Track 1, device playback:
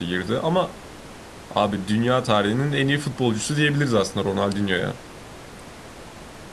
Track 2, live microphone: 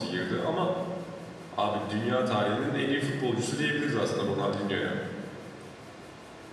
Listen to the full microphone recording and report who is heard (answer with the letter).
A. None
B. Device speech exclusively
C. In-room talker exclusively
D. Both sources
B